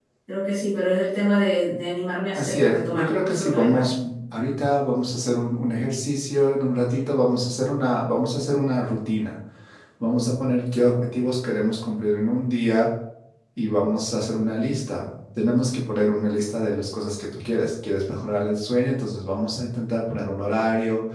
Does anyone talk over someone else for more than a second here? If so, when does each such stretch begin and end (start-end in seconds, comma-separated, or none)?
2.4-3.9